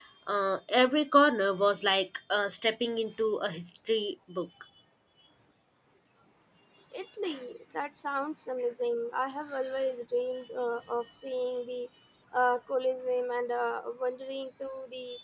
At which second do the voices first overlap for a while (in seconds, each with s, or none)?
none